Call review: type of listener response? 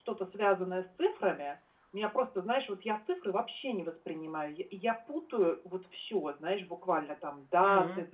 listening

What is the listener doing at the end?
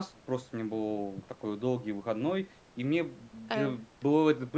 listening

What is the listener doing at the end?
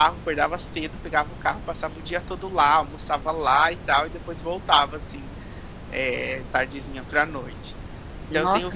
taking over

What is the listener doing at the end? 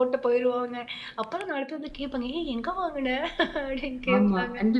taking over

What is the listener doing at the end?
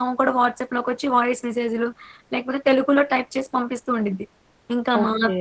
listening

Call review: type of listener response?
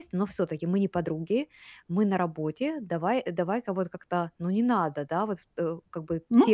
listening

